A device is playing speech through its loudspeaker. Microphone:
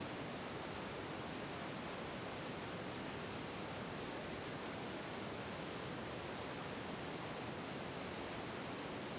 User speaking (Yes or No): No